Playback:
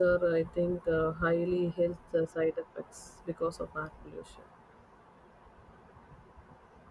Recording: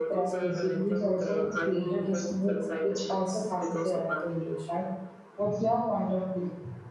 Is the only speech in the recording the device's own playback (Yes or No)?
No